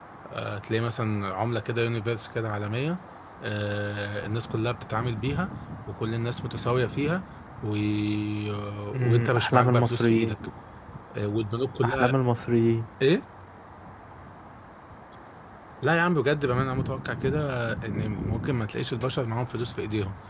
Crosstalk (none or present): present